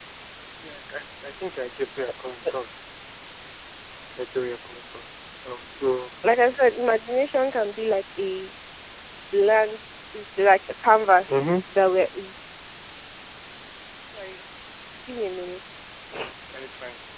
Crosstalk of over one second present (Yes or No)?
No